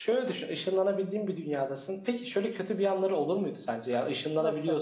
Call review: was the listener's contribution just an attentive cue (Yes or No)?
Yes